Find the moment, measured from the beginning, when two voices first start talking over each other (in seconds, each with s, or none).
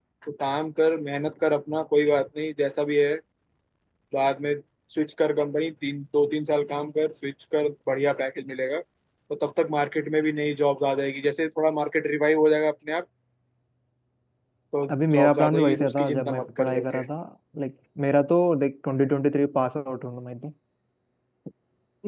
14.9 s